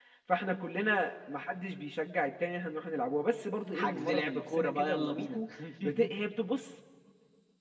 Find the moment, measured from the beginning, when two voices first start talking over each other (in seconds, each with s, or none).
3.7 s